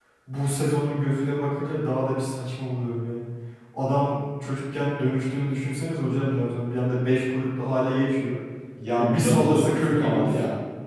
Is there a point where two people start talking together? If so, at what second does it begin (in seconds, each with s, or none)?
9.0 s